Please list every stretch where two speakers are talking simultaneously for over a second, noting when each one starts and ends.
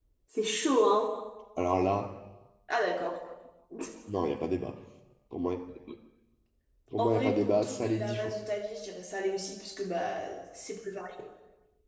7.0-8.3

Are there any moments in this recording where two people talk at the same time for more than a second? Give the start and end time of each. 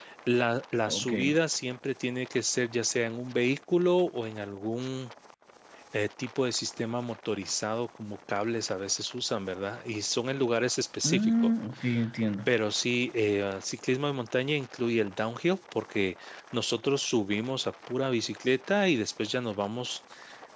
none

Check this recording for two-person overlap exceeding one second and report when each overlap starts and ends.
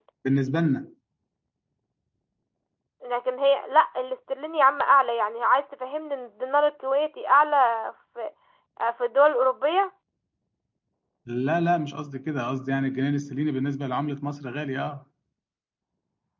none

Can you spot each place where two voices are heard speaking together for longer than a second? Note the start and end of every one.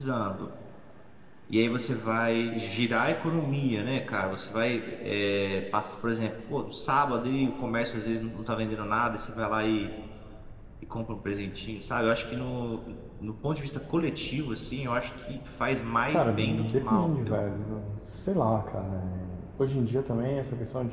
16.1-17.4

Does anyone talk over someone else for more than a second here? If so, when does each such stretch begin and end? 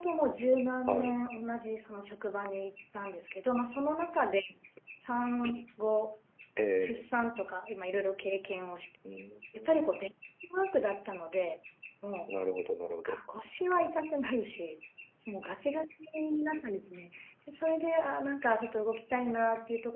none

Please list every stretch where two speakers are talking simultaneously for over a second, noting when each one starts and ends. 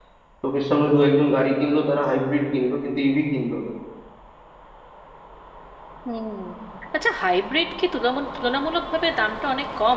none

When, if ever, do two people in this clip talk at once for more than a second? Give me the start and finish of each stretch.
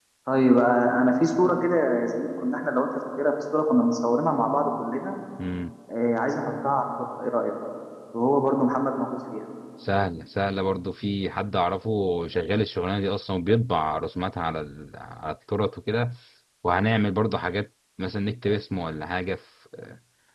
none

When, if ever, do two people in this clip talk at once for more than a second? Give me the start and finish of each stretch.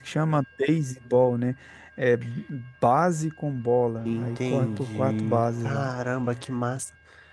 4.0-5.9

